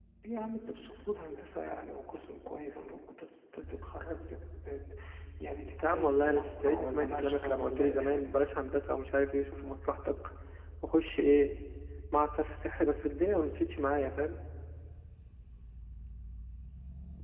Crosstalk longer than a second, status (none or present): present